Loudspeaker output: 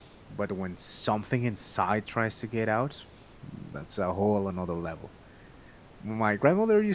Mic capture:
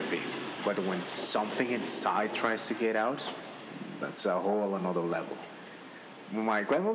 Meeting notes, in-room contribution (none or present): none